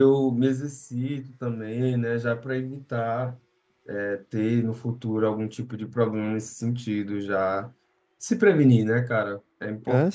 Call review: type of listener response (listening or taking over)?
taking over